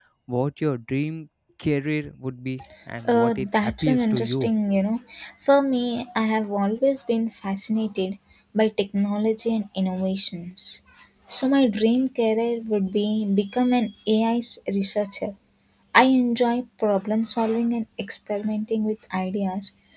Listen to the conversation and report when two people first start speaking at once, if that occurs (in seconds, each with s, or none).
3.1 s